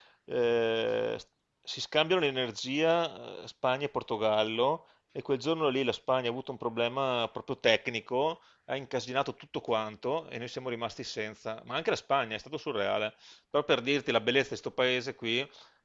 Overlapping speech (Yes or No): No